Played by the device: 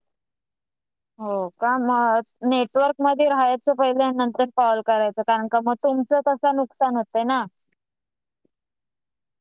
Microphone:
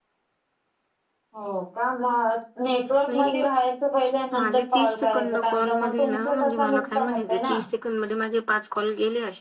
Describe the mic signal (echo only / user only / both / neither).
both